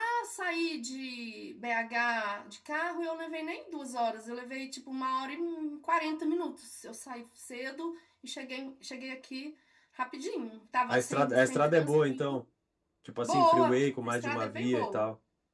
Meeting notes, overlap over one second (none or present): present